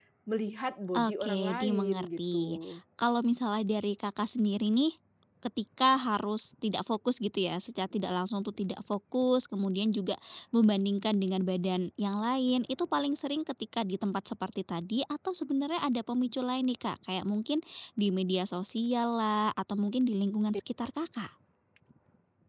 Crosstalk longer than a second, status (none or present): present